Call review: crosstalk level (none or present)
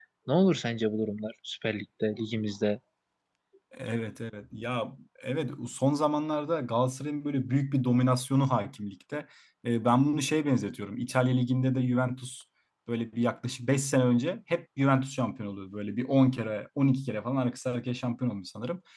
none